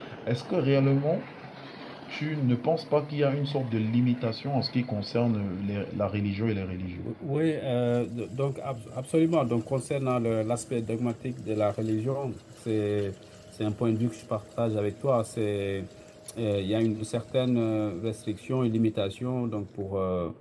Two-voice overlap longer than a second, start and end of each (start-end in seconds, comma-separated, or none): none